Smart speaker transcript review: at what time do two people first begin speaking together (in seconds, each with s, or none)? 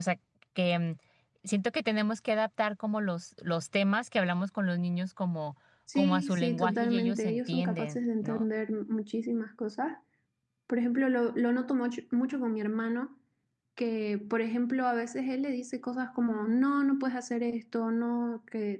6.0 s